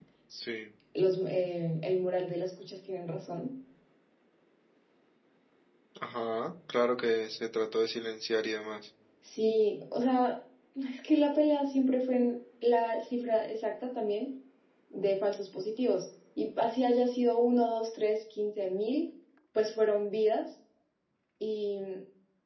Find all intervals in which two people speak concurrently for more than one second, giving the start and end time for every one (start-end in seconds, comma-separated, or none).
none